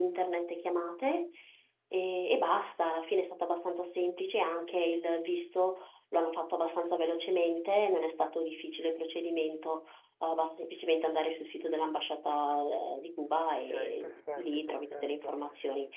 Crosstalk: present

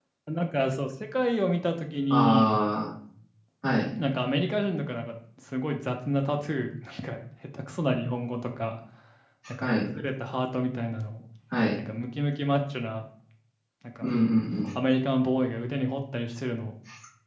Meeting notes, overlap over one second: none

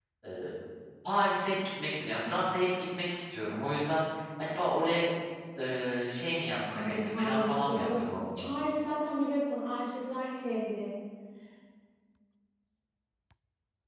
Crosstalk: present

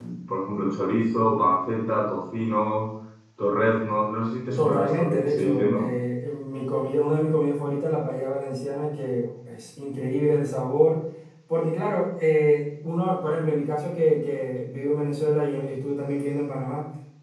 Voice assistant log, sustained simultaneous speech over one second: present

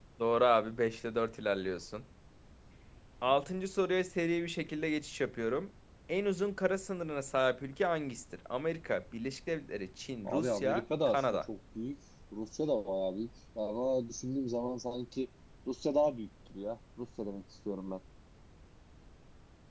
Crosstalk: present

